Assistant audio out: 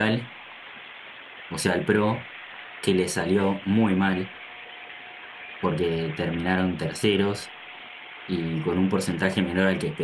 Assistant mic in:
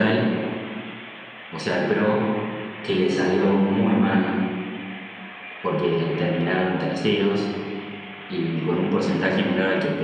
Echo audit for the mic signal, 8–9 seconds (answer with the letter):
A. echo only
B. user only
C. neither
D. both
A